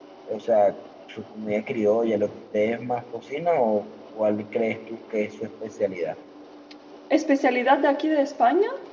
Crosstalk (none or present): none